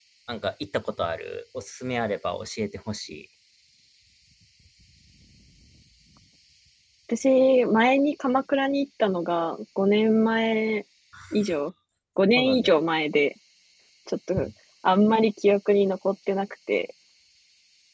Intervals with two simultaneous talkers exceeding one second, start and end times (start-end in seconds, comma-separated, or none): none